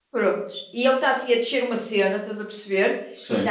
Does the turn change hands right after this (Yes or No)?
No